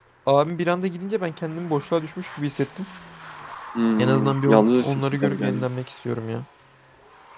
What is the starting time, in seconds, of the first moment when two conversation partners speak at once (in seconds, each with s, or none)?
4.0 s